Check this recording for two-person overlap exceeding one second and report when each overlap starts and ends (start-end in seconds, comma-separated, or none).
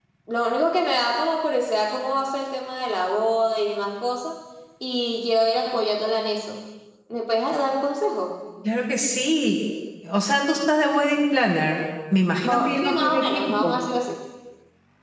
12.5-13.7